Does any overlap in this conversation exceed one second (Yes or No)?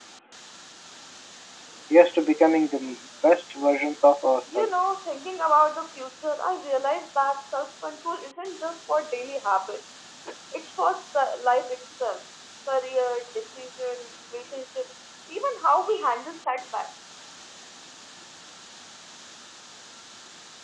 No